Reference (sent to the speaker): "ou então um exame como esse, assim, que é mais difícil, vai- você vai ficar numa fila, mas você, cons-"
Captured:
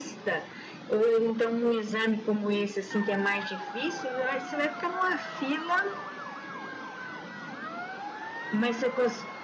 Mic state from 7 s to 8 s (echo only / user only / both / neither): neither